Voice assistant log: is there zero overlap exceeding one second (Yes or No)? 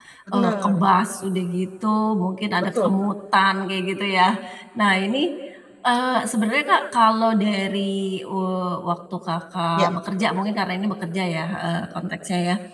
Yes